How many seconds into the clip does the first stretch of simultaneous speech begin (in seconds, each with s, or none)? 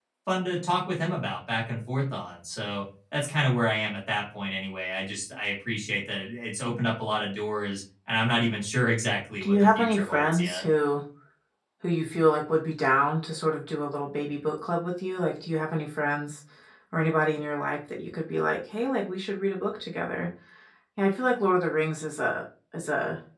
9.4 s